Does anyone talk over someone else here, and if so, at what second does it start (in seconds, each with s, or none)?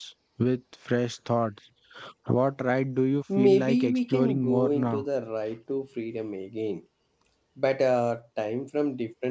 3.3 s